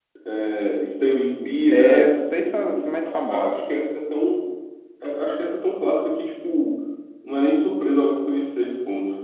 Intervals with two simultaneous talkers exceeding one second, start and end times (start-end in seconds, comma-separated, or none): 1.7-3.6